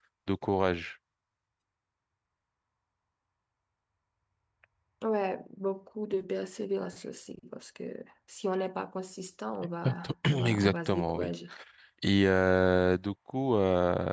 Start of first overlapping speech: 9.8 s

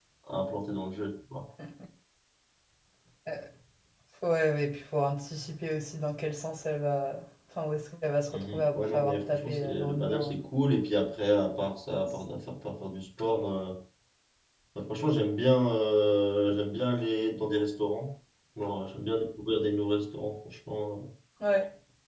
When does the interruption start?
8.3 s

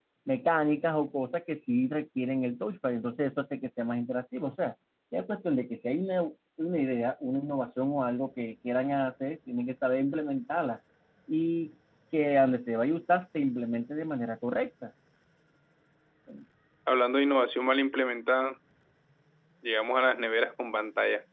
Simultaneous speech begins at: none

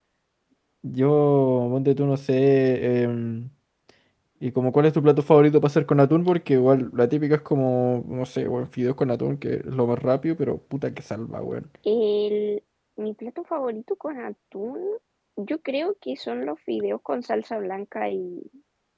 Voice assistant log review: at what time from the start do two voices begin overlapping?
none

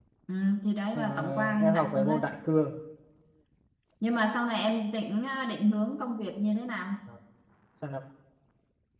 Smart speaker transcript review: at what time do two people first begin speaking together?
0.9 s

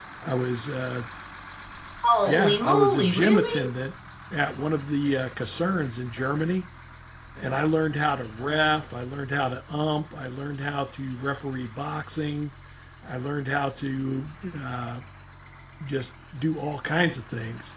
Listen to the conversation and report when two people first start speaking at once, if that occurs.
2.3 s

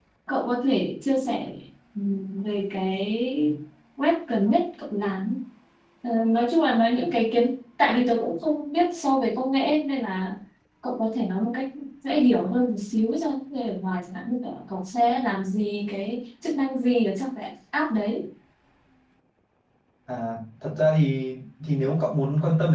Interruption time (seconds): none

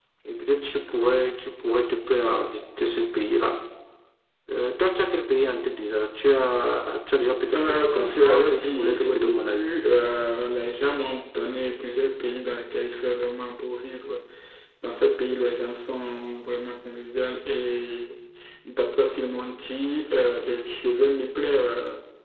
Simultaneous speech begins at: 7.5 s

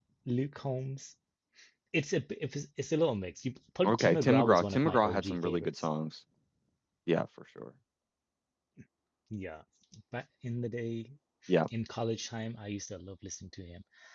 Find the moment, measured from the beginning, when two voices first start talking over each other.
3.8 s

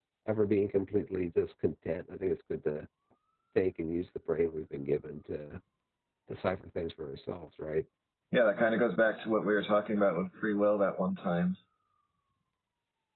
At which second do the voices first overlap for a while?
none

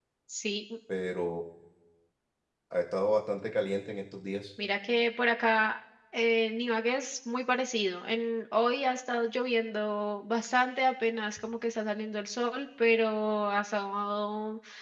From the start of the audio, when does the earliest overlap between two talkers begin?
none

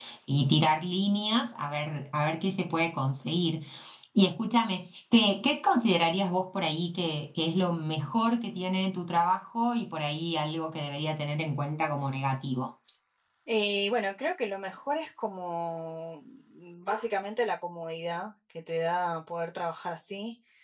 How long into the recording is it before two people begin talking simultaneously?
none

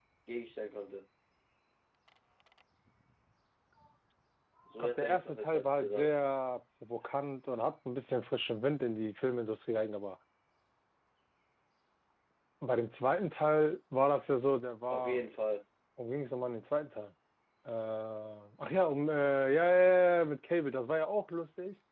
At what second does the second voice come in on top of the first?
4.8 s

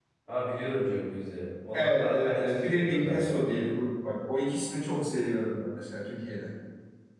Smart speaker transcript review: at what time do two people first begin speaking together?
1.7 s

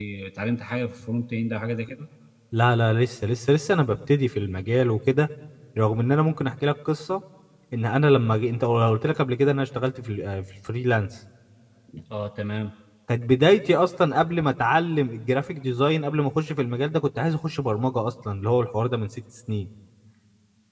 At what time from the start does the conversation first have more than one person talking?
none

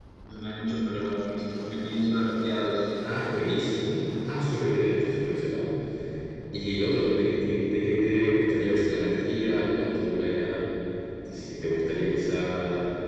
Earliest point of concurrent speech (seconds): none

